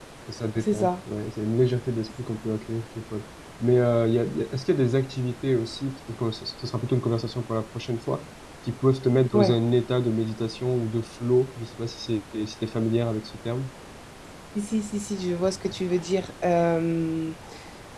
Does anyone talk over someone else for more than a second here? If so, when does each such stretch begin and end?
none

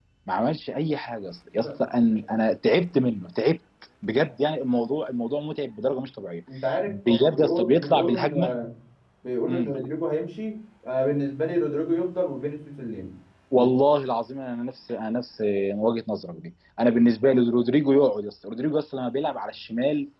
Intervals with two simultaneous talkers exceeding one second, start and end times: 6.9-8.5

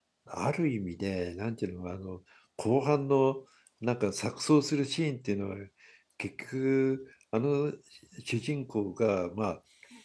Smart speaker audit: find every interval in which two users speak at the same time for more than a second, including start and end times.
none

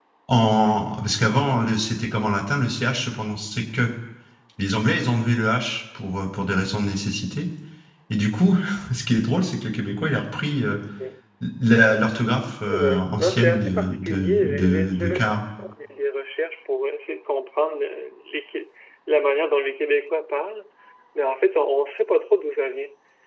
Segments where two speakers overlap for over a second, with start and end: 12.7-15.3

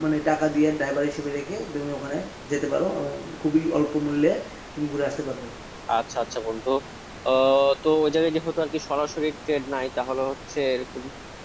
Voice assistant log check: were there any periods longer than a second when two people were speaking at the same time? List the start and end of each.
none

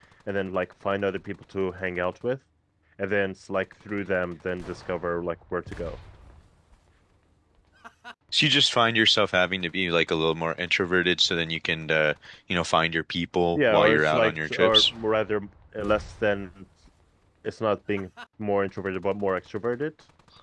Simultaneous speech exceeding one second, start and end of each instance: 13.6-14.8

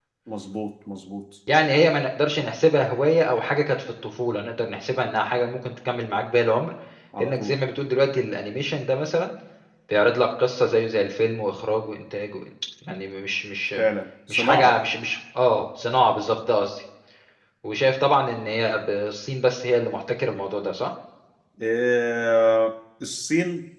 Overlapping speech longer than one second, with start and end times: none

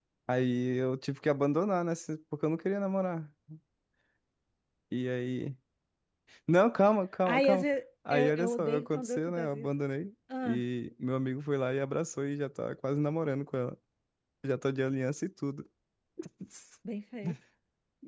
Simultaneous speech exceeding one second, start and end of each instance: 8.1-9.7

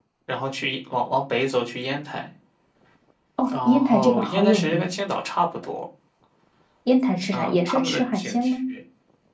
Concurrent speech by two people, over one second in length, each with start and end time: 3.5-4.9, 7.3-8.6

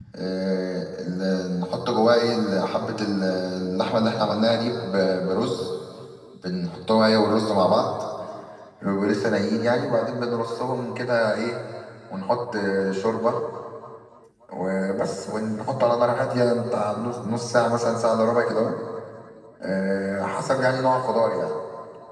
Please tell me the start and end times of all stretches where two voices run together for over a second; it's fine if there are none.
none

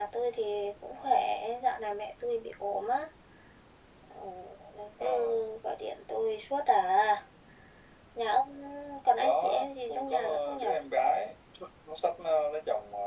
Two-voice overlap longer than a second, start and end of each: 9.2-10.7

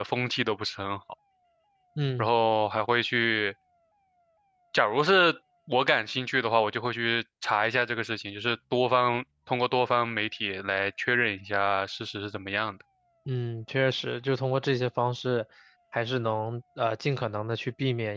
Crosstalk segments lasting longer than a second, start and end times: none

